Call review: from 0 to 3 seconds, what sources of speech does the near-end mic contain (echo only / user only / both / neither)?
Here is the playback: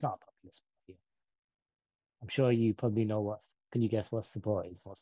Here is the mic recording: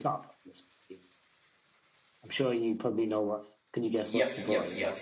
echo only